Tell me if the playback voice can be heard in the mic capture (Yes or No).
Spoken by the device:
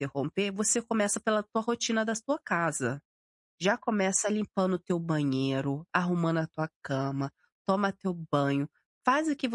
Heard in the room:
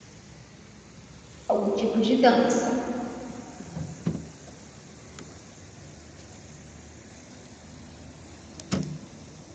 No